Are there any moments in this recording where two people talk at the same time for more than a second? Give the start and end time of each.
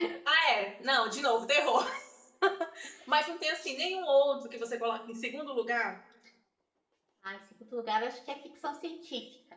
none

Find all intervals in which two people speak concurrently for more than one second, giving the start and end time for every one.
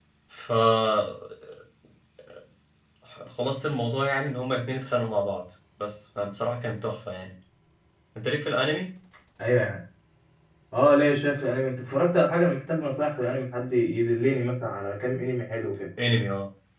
none

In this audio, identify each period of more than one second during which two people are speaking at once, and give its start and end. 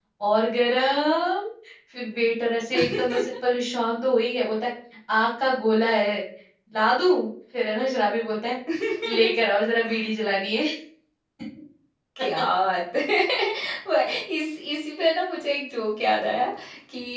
none

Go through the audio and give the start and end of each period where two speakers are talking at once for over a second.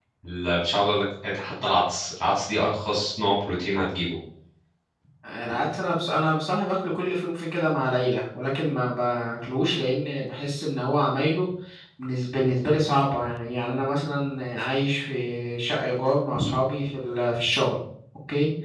none

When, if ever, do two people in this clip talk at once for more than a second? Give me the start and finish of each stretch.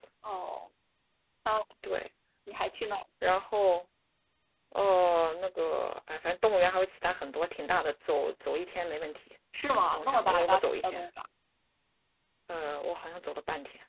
9.8-11.1

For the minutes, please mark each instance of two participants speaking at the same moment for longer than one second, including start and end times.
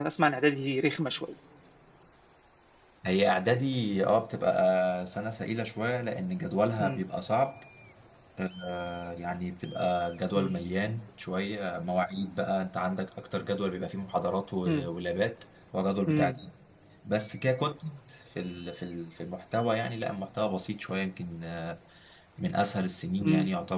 none

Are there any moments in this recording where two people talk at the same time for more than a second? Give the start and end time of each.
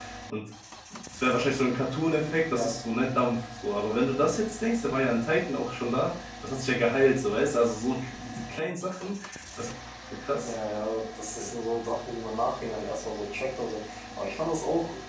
none

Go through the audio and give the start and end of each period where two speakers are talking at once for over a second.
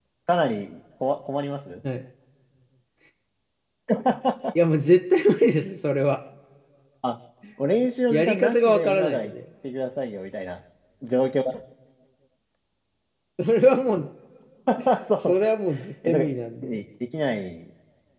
8.1-9.3

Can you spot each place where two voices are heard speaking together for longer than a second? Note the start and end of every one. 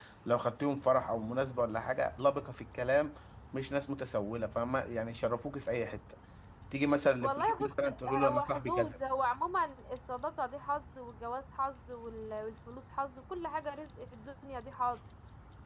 7.2-9.0

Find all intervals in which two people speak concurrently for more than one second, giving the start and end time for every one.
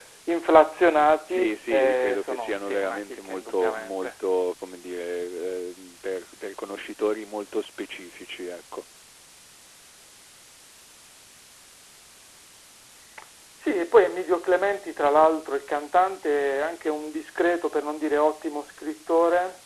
1.3-4.1

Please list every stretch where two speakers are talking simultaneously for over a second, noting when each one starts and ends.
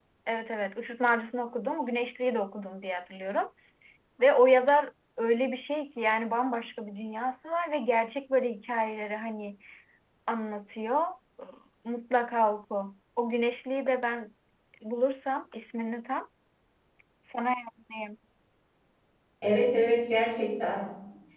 none

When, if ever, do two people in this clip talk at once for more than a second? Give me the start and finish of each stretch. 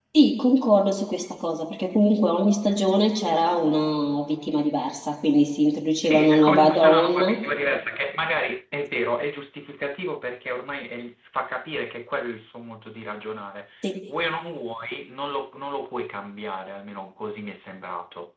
6.0-7.4

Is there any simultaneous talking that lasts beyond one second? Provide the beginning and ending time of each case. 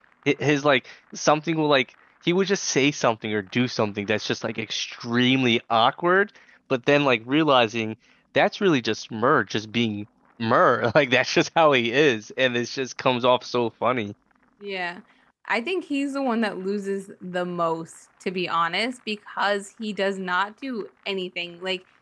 none

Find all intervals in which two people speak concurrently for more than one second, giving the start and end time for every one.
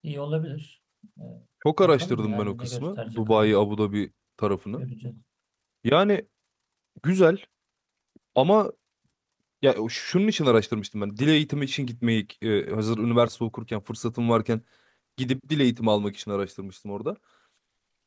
1.8-3.5

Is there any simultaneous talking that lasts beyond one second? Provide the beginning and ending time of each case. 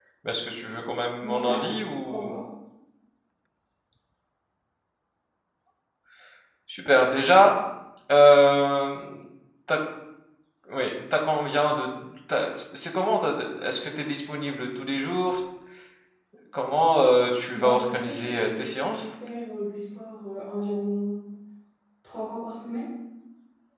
17.5-19.1

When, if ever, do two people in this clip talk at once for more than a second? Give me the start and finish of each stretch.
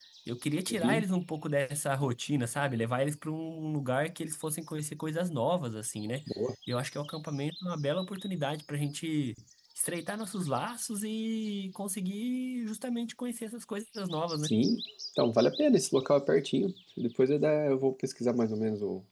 none

